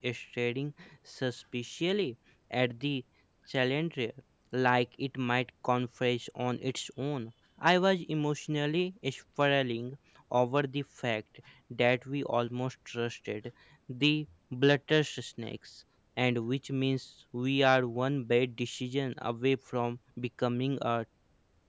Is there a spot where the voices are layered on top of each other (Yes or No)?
No